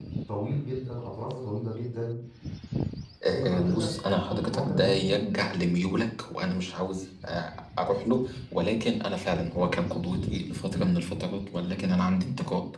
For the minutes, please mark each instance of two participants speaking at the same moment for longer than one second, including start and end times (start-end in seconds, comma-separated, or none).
3.4-5.1